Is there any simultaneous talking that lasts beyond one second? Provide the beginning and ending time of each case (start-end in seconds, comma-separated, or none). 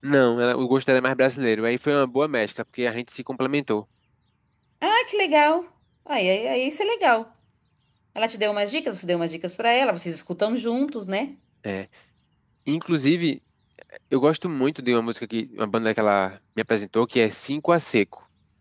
none